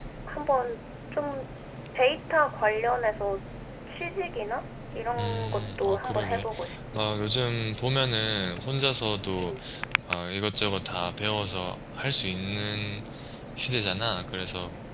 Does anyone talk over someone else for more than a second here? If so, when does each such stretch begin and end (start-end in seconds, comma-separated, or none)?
5.2-6.5